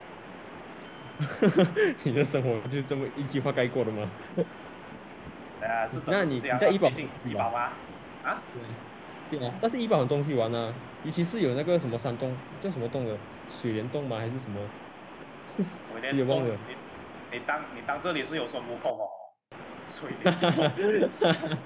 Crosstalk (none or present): present